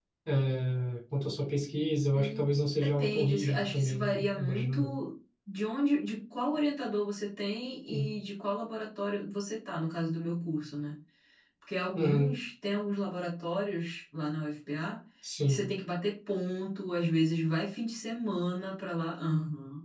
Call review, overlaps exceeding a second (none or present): present